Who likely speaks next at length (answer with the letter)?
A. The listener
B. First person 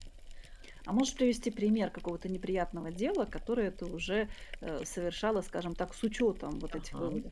A